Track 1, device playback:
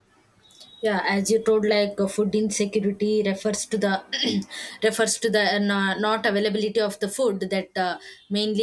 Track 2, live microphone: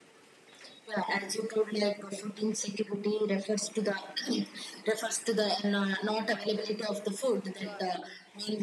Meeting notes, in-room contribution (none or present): present